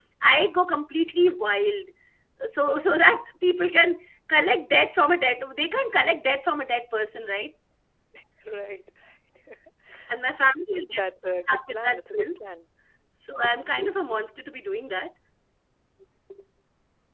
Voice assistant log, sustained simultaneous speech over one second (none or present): present